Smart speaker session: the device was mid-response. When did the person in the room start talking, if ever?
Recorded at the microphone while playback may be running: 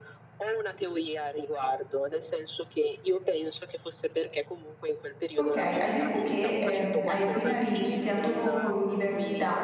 5.3 s

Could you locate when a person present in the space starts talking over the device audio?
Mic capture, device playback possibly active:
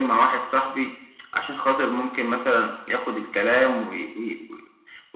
none

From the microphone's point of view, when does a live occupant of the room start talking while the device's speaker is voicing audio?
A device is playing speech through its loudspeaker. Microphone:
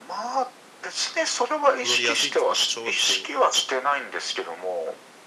1.7 s

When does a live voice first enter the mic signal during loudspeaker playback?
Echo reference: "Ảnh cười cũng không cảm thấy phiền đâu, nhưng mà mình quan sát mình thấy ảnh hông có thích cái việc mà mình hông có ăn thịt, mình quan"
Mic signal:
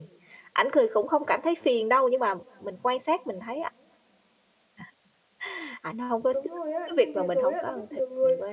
6.3 s

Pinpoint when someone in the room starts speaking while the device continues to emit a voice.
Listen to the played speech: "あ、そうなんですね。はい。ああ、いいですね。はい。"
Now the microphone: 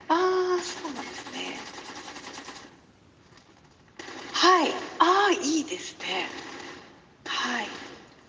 none

